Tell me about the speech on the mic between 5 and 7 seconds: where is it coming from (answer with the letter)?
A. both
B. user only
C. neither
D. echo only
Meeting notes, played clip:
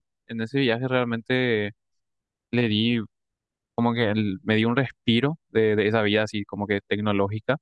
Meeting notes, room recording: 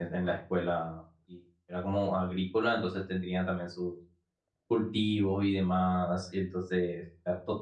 B